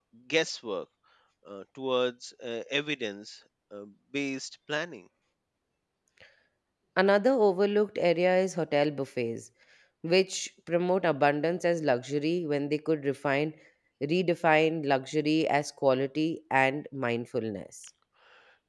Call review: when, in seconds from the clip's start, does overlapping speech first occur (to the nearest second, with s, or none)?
none